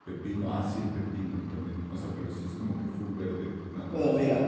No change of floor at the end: No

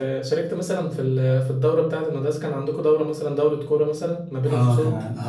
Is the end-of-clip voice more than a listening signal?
Yes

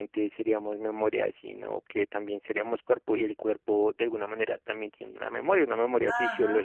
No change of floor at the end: No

